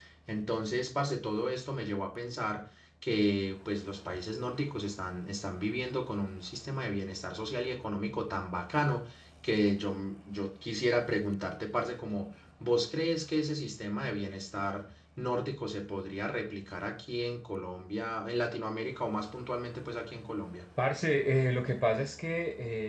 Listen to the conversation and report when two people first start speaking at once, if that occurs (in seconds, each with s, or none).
none